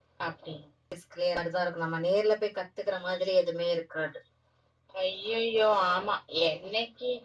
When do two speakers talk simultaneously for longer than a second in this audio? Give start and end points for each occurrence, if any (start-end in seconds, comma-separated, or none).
none